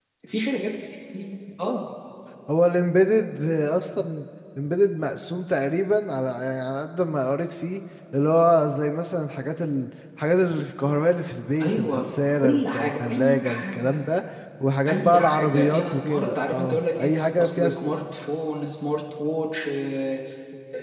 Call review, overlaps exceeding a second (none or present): present